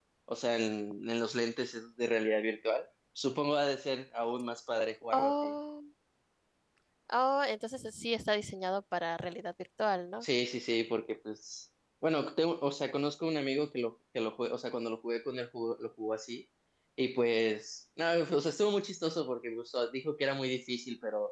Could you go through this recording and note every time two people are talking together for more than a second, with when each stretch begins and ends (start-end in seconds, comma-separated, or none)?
none